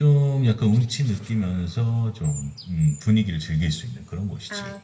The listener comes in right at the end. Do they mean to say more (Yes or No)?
Yes